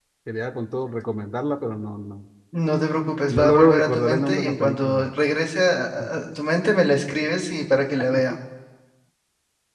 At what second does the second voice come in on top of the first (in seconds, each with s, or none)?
3.3 s